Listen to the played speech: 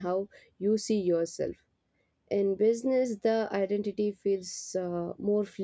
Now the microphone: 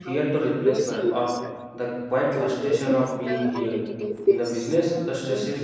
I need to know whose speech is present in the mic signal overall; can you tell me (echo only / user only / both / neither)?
both